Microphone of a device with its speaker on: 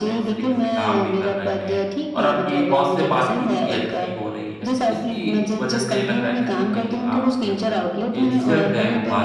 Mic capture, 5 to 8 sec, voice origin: both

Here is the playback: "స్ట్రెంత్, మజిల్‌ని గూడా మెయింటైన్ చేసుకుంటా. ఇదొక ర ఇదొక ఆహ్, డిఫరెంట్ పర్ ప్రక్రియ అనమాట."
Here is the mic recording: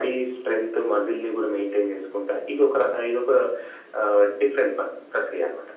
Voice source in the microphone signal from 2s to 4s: echo only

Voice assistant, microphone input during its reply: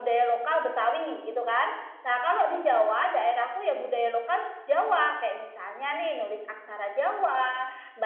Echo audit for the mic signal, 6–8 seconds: echo only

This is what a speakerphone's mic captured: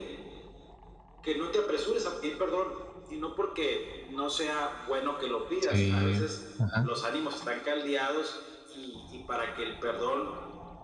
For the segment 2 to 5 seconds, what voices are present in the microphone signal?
echo only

